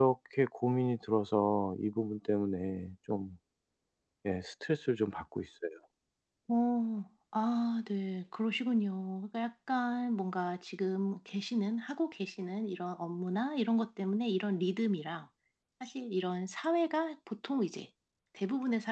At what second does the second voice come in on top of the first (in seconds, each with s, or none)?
none